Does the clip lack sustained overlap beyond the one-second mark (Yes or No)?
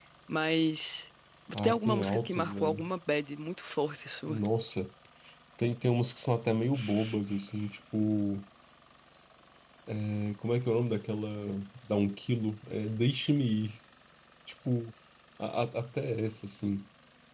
No